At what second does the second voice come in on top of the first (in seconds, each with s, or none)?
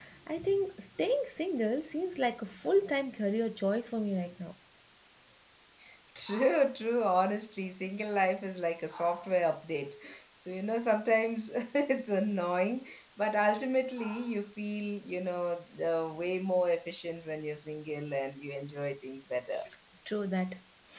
none